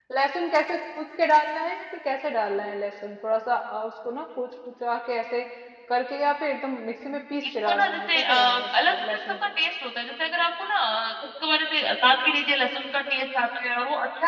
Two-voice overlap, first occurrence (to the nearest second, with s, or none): 7 s